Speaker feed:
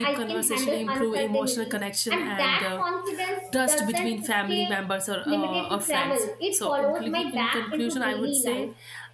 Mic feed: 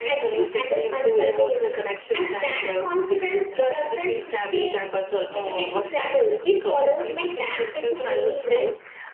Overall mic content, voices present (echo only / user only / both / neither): echo only